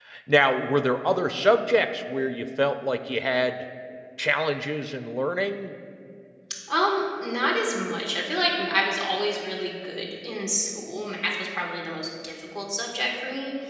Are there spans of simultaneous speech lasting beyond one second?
No

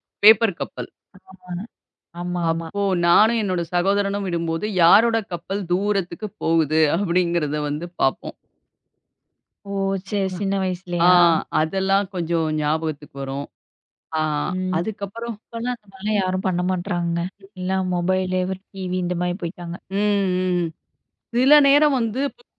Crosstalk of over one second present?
No

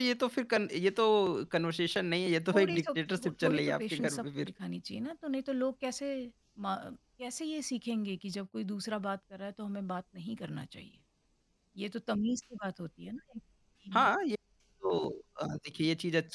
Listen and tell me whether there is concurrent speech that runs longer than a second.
Yes, from 2.5 s

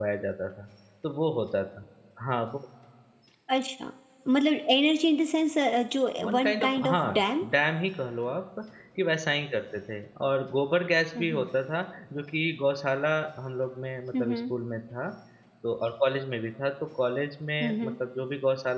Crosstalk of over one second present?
Yes, from 6.2 s

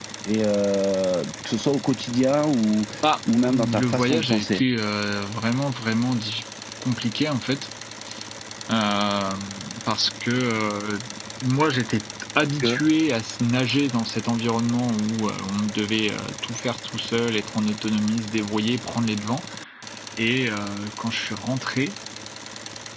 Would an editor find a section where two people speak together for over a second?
Yes, from 3.3 s

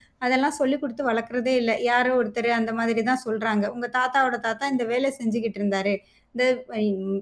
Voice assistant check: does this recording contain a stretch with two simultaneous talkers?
No

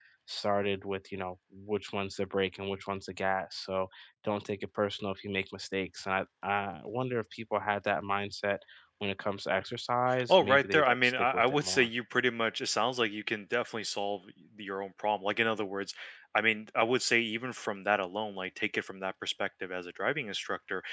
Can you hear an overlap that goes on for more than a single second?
Yes, from 10.1 s

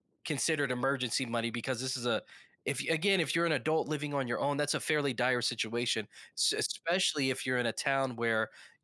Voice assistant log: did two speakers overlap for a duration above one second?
No

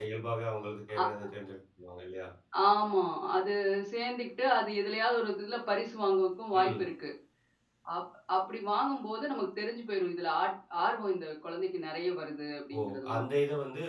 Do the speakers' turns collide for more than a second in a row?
No

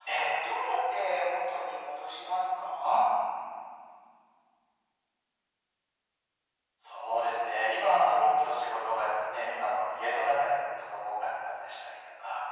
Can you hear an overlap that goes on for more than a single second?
No

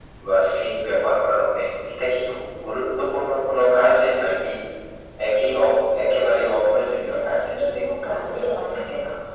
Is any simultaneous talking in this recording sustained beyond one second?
Yes, from 7.0 s

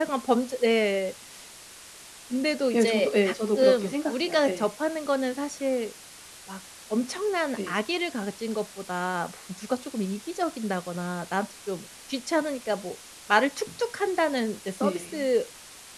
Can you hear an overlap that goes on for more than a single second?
Yes, from 2.7 s

